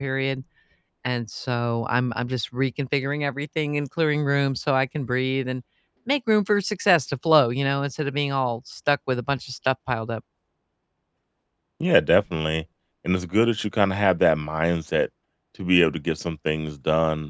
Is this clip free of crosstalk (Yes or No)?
Yes